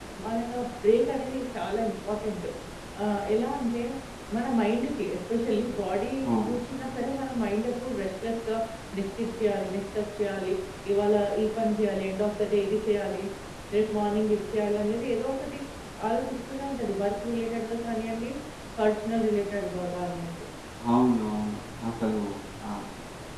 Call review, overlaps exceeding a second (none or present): none